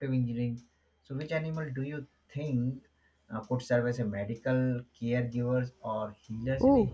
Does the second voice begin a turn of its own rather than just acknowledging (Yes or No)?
Yes